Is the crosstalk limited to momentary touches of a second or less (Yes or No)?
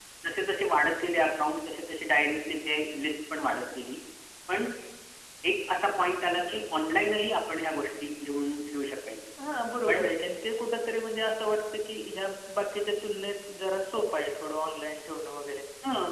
Yes